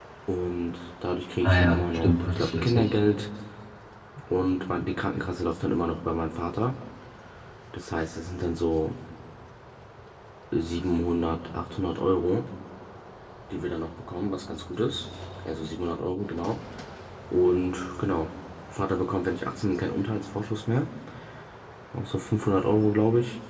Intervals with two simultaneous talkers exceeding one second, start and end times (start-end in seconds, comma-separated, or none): 1.4-2.9